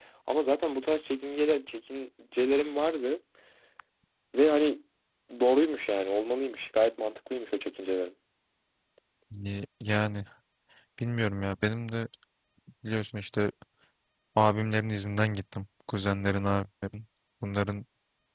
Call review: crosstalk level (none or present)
none